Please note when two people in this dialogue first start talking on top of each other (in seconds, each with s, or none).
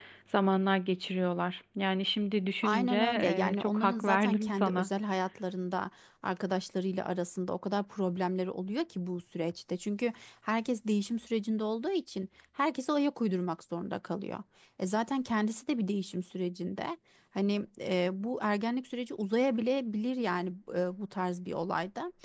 2.6 s